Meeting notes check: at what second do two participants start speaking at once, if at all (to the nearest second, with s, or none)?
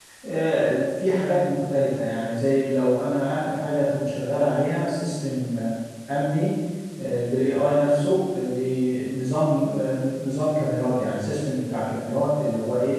none